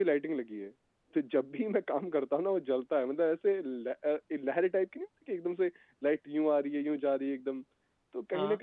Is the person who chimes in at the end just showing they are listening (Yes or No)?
Yes